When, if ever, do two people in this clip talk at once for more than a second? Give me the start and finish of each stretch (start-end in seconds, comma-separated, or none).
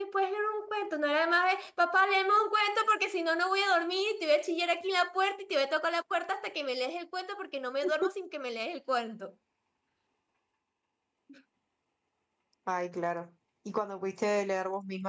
none